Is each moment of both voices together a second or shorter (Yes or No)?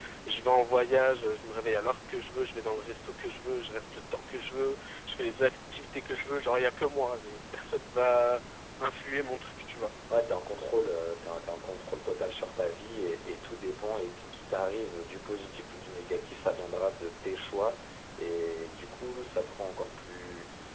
Yes